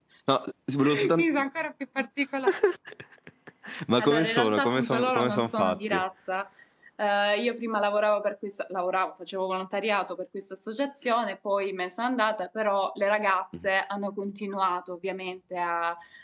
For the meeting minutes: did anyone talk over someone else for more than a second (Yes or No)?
Yes